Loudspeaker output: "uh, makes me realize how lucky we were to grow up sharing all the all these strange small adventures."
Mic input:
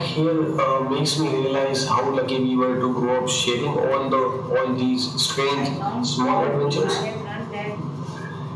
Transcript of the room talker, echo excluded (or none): I don't don't think I have run that